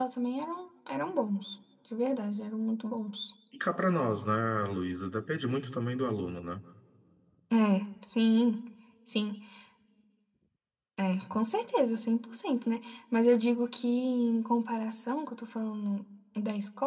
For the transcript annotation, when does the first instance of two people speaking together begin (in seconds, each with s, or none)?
none